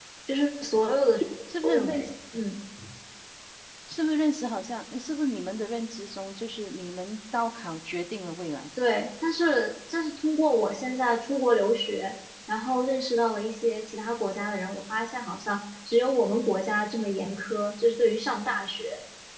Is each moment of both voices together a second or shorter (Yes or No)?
Yes